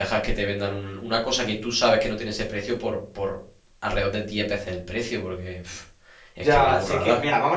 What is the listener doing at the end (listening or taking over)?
taking over